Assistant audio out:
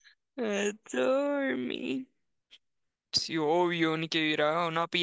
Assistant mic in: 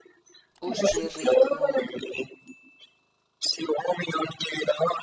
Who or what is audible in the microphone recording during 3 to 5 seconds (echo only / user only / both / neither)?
echo only